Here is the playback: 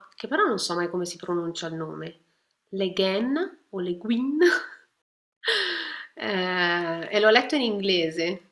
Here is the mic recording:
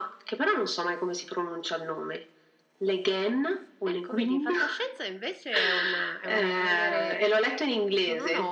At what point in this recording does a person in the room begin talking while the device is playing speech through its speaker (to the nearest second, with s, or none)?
4 s